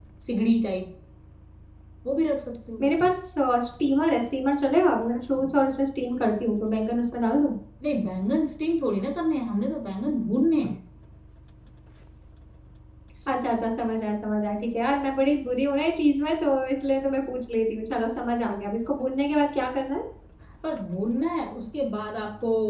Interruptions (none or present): none